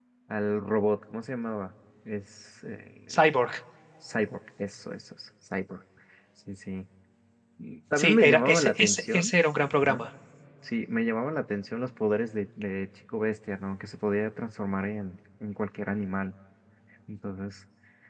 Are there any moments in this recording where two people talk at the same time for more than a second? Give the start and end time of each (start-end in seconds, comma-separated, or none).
8.0-9.3